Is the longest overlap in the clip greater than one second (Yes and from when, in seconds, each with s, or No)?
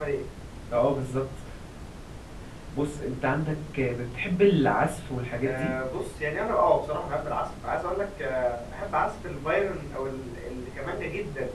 No